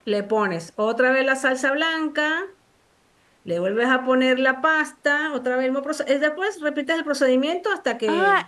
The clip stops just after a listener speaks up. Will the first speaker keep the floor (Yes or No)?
No